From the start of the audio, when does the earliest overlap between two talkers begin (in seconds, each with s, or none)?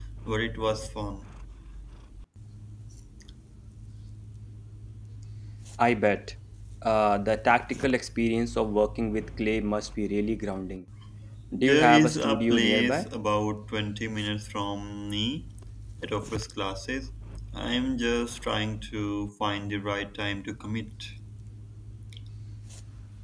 11.6 s